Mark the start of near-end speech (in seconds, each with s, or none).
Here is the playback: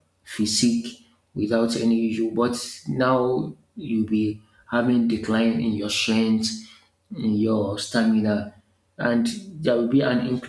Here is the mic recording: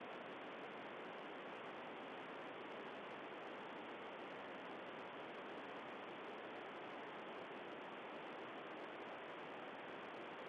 none